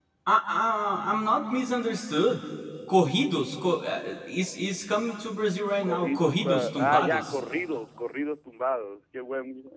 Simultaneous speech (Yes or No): Yes